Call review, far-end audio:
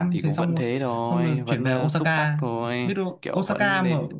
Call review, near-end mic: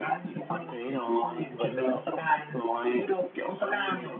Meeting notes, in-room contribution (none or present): none